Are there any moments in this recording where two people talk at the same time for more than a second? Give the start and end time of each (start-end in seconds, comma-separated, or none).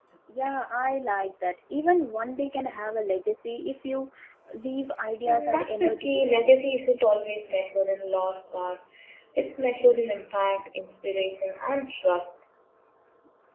5.3-6.5